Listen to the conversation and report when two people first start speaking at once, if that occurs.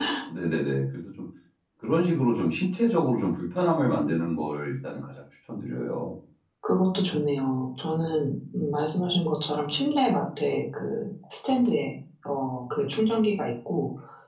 none

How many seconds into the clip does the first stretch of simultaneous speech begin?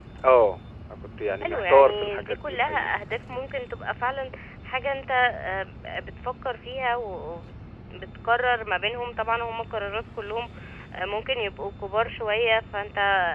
1.4 s

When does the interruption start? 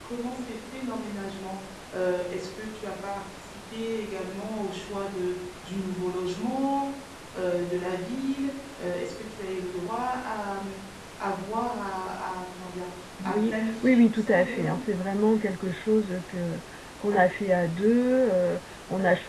13.2 s

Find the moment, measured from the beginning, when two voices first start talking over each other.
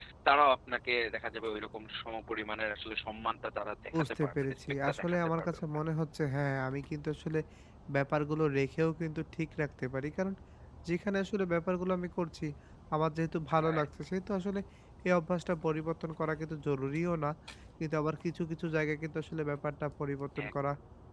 3.9 s

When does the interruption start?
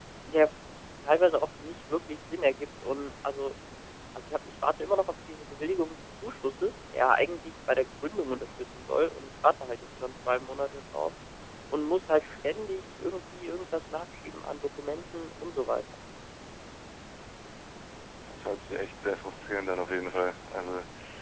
none

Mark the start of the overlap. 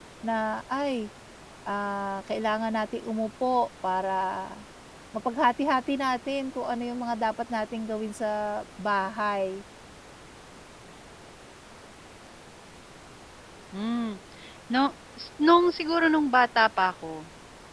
none

